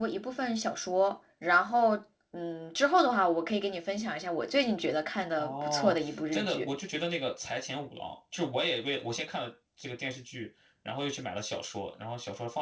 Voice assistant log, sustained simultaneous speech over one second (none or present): present